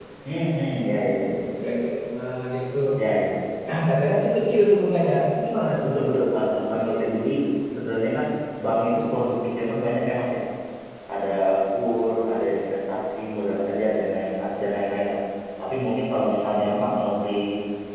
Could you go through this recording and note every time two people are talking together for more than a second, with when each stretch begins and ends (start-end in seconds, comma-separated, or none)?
none